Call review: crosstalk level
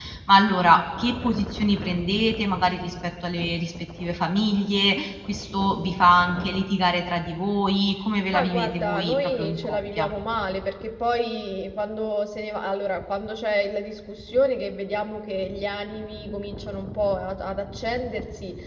present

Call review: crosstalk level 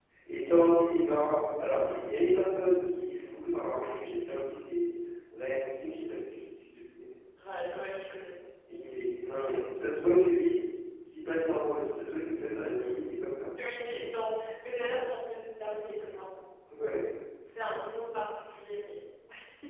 none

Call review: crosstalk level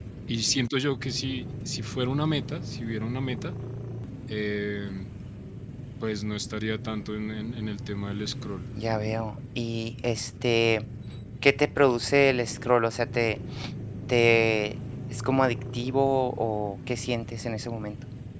none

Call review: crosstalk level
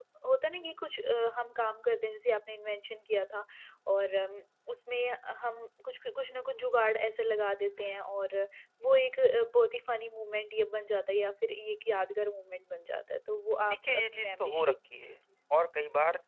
present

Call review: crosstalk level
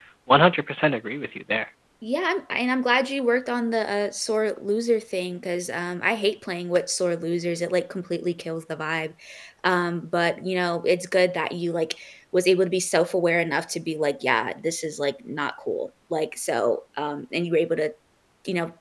none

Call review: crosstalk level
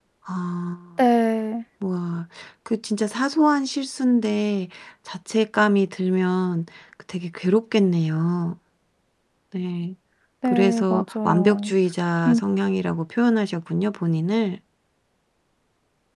present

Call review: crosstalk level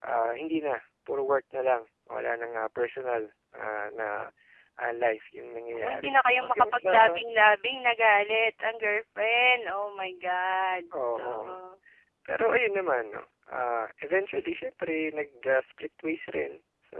present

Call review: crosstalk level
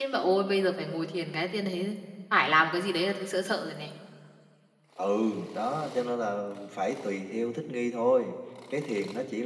none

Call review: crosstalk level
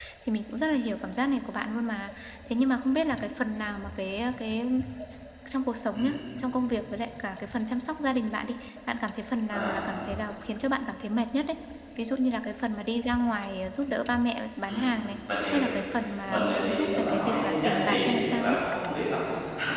present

